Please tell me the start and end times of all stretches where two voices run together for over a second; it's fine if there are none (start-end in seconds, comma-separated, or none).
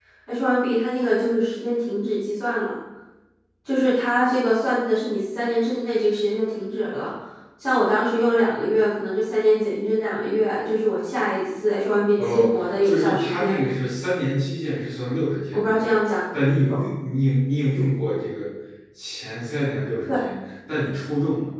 12.3-13.6